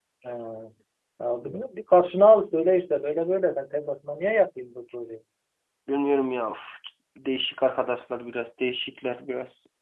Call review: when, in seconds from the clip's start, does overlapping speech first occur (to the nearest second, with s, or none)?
none